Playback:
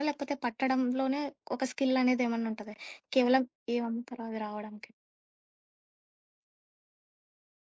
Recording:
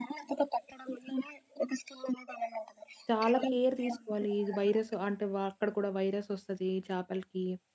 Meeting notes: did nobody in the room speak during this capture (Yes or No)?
No